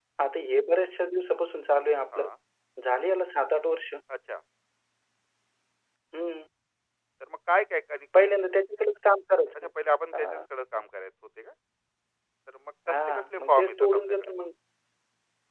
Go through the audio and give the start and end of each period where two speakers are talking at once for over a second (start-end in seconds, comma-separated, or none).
12.9-14.3